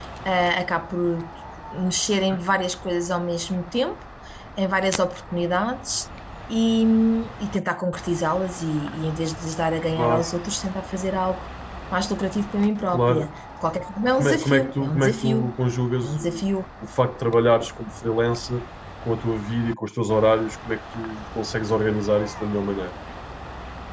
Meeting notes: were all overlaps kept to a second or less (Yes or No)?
No